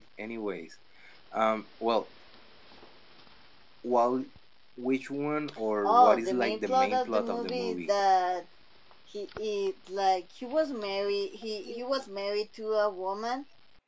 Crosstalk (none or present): present